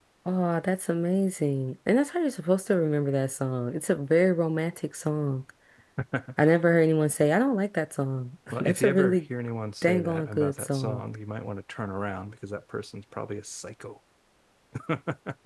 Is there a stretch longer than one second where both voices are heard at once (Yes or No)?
Yes